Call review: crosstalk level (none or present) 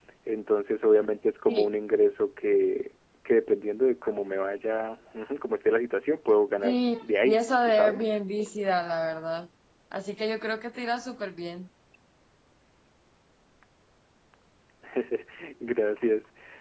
present